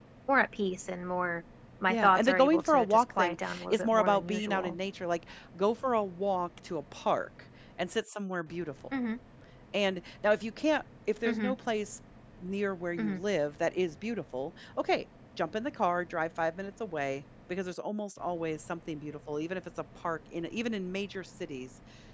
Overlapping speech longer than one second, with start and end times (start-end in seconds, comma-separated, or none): 1.9-4.8